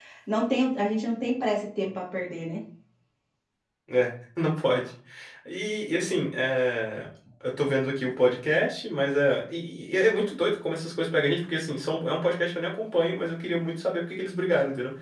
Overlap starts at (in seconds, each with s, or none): none